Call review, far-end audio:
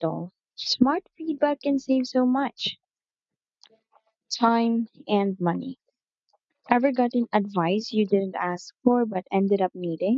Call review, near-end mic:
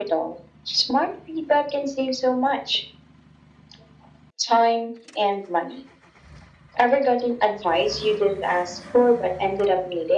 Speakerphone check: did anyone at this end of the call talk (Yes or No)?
No